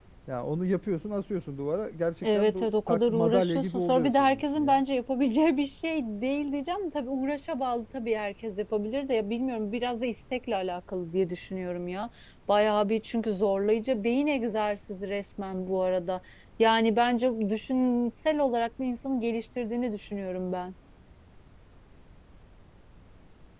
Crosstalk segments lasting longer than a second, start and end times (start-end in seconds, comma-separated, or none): 2.2-4.8